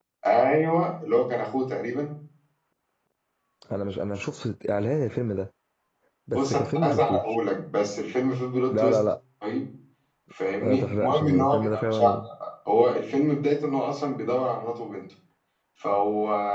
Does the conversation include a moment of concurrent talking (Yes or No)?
Yes